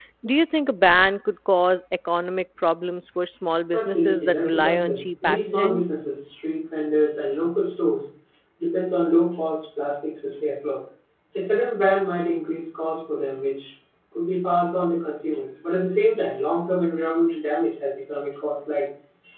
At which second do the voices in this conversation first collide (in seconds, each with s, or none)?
3.7 s